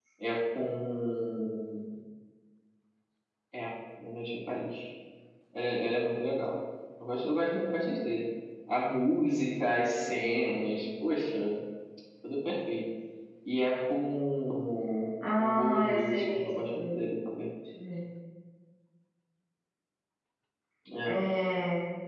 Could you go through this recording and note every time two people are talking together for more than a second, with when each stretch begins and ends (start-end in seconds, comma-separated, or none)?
15.4-17.0